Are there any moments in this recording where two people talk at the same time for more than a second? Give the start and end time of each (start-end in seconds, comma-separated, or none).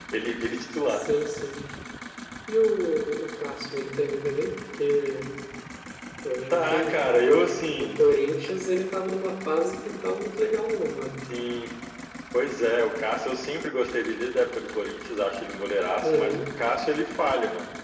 6.5-8.0